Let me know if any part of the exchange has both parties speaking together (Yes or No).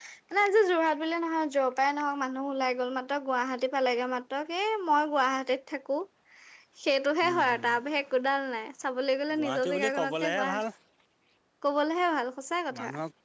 Yes